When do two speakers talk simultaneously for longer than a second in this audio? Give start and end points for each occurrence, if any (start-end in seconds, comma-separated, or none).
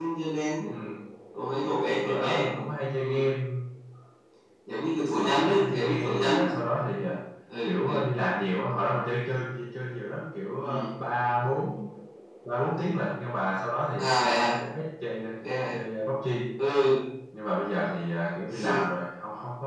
5.2-6.5